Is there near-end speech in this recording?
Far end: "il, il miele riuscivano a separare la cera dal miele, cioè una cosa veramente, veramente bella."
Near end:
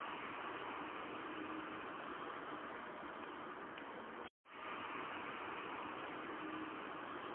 No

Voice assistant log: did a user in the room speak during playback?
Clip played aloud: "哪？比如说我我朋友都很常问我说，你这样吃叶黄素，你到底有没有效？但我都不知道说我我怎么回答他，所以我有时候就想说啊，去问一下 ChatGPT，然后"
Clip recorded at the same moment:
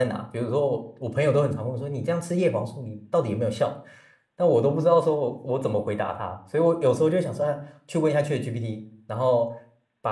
No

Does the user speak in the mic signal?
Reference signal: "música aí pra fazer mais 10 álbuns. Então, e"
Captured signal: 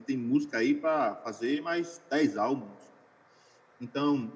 No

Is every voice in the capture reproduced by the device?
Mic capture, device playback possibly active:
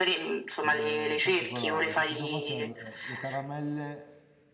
No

